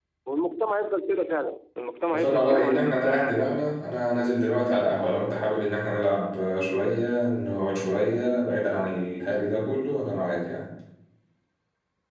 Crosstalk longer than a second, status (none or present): present